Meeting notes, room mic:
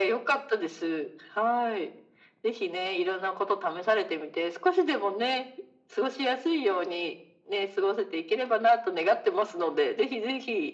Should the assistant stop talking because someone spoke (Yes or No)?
No